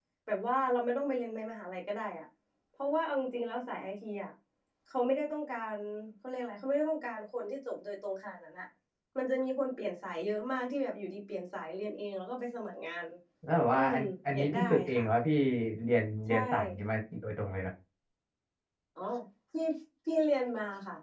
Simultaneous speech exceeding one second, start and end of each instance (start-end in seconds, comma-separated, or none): 13.7-15.1